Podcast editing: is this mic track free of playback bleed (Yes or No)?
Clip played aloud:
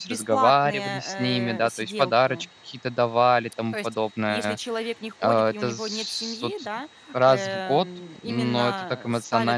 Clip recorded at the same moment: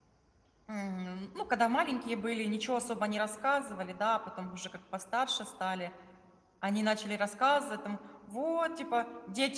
Yes